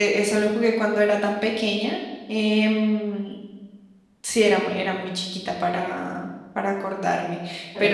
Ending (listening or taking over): listening